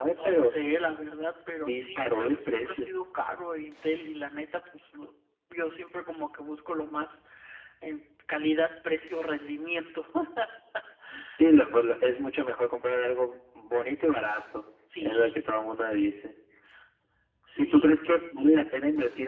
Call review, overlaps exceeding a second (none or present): present